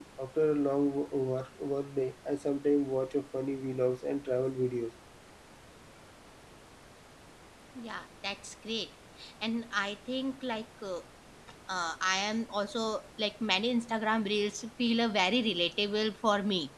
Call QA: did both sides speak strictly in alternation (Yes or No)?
Yes